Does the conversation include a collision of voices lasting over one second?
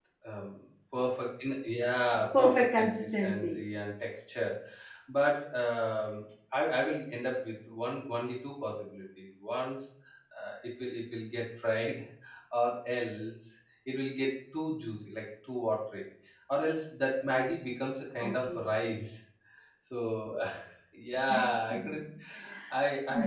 Yes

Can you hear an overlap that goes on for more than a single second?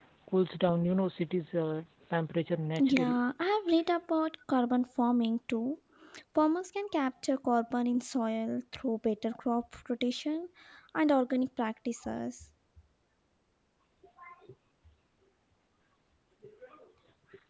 No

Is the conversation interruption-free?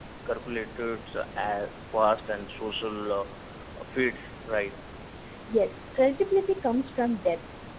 Yes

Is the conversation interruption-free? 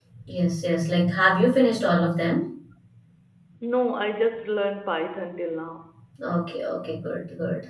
Yes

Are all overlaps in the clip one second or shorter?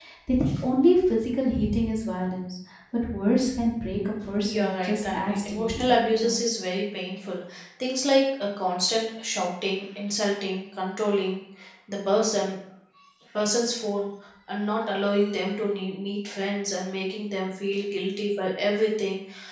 No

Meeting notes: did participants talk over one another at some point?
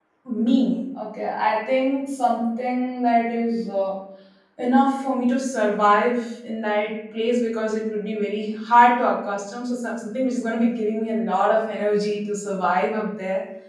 No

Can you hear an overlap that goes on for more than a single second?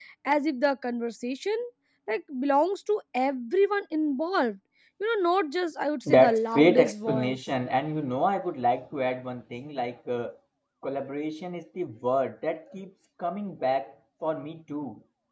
Yes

